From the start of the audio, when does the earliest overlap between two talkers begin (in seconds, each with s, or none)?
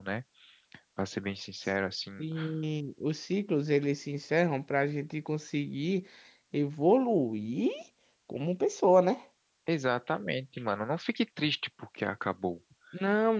none